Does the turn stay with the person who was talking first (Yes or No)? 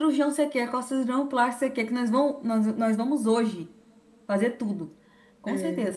Yes